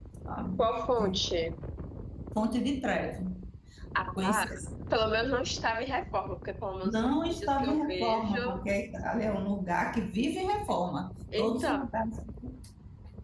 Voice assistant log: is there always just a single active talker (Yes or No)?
No